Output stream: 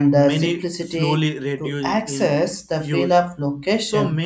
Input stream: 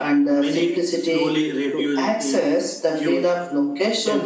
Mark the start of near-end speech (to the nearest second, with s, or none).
none